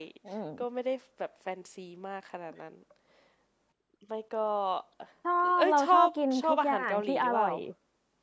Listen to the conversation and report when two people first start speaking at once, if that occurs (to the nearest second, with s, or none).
6 s